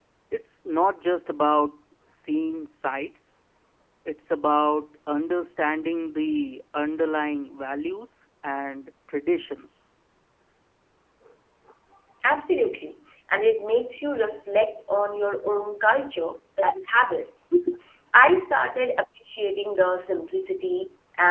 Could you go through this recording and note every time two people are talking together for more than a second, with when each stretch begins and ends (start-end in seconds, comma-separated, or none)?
none